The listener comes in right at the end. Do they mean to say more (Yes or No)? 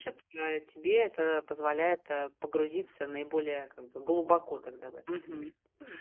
Yes